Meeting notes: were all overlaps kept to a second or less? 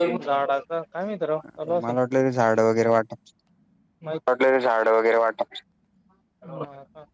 Yes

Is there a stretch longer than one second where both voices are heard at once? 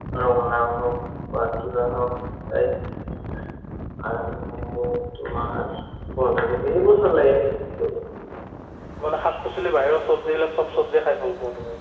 No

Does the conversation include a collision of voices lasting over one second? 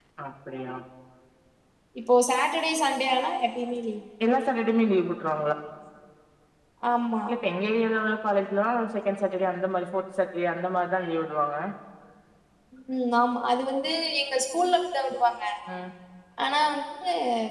No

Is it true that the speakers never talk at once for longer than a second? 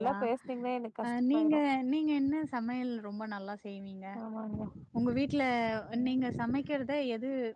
Yes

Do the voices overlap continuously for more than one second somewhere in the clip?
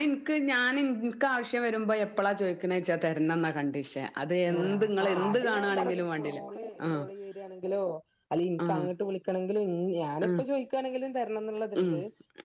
Yes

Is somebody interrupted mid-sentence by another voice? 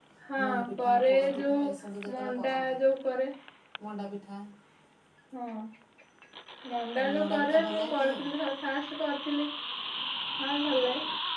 Yes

